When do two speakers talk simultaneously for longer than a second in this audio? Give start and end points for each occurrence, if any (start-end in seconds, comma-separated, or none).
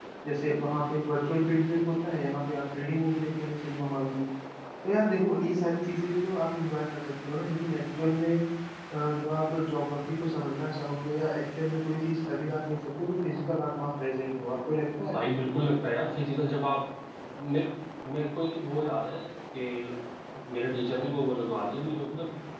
none